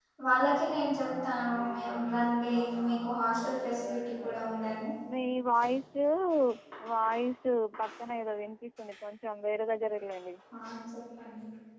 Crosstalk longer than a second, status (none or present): none